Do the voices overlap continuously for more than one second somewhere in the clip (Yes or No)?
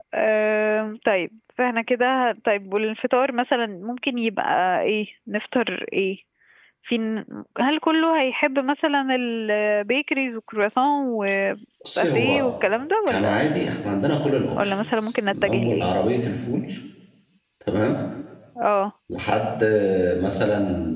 Yes